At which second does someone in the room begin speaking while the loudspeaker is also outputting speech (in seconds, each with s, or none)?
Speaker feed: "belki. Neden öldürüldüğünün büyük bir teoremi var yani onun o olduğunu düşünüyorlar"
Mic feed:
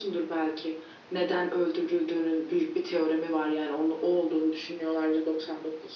none